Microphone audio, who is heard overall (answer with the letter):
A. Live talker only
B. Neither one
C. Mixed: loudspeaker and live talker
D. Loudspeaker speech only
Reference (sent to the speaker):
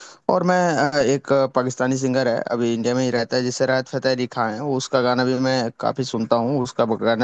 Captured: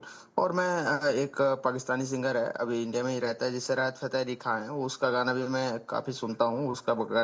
D